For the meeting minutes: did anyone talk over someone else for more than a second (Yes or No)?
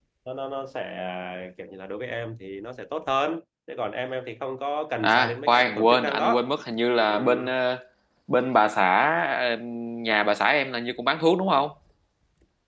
Yes